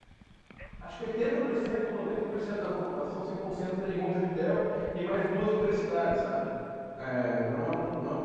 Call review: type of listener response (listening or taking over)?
listening